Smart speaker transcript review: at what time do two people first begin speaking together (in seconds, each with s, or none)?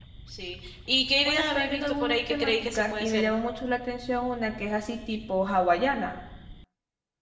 1.2 s